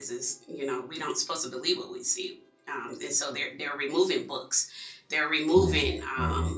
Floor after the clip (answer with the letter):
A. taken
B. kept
B